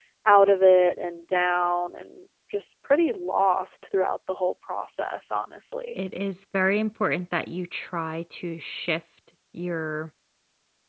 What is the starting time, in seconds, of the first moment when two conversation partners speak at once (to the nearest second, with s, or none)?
none